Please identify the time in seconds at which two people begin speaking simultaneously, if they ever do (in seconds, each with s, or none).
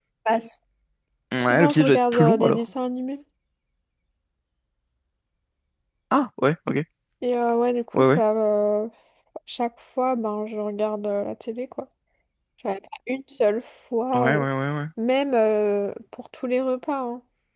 1.3 s